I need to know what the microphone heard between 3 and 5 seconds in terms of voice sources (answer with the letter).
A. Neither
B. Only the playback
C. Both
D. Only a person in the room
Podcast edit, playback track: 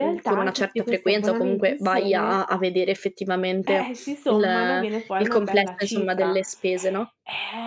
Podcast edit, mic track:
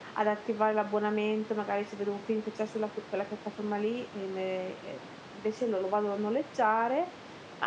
D